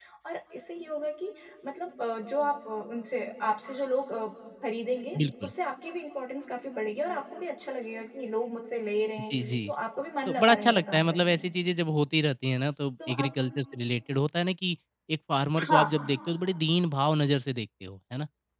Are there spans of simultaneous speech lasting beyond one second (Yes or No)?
Yes